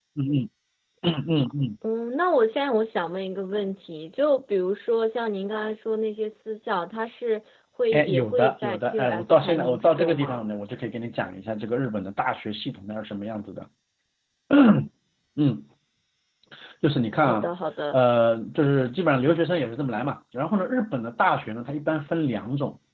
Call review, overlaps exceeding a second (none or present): present